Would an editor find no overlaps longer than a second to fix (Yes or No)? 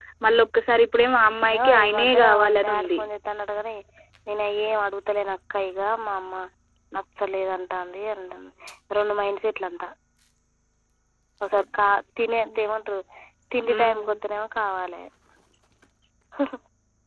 No